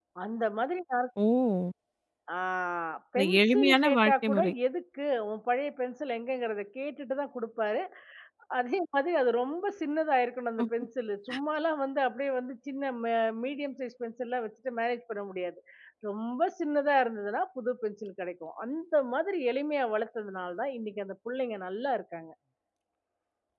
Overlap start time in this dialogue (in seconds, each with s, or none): 3.2 s